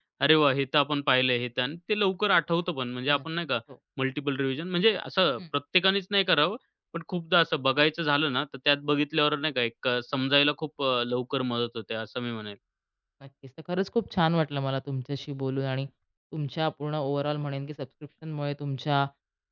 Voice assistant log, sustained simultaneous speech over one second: none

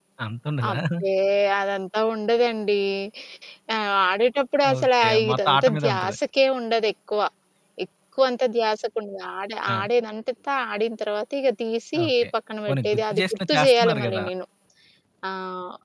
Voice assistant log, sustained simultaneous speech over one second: present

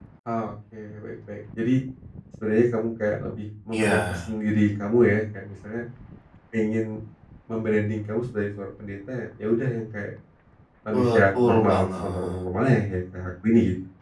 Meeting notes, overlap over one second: present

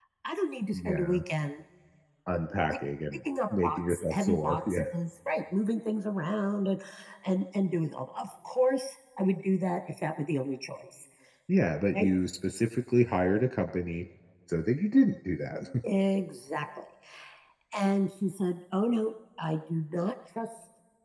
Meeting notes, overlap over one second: present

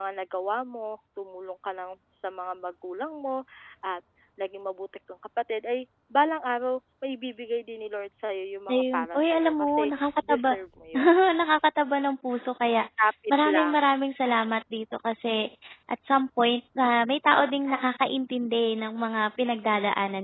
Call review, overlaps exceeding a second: present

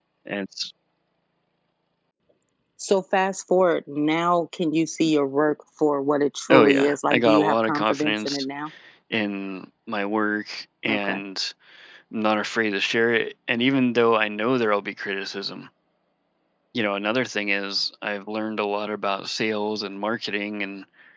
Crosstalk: present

